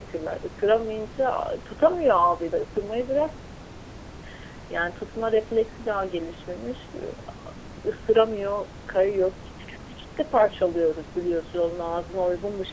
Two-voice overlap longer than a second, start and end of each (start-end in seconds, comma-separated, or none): none